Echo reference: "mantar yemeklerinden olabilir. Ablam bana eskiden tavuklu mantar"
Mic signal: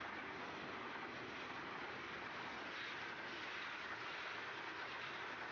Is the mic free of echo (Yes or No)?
Yes